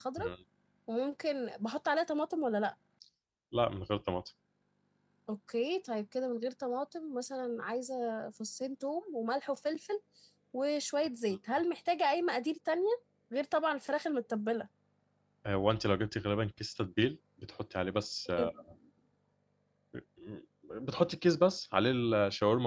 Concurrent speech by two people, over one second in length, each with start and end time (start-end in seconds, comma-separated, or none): none